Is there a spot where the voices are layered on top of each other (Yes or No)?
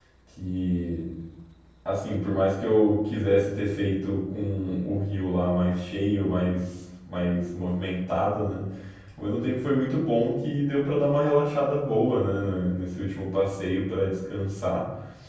No